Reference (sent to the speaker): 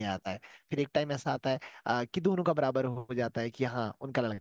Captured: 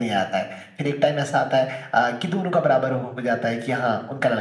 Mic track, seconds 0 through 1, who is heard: echo only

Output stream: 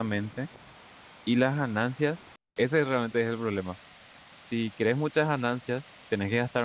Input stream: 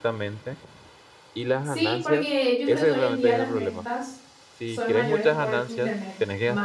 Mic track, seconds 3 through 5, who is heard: both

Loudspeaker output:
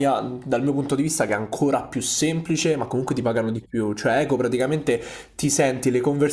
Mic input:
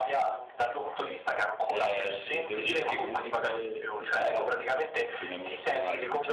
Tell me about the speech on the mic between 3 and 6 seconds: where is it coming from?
both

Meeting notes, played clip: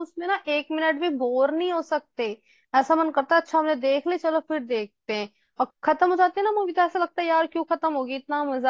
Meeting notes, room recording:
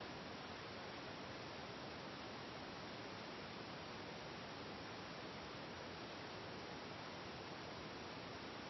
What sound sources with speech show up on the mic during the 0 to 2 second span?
neither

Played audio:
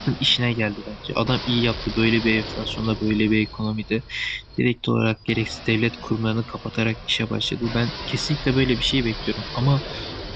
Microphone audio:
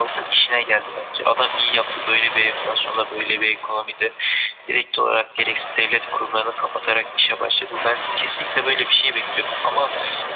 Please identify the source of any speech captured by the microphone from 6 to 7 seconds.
echo only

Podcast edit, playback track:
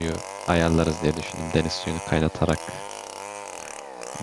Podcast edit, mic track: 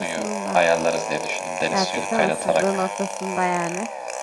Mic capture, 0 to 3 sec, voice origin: both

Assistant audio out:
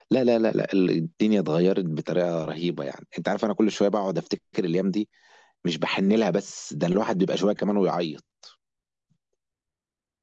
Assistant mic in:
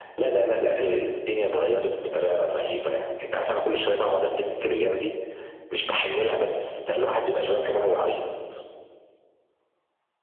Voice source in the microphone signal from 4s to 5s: echo only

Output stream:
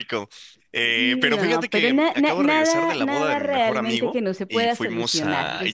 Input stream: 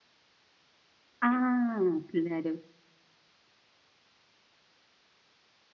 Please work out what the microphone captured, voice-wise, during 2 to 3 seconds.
user only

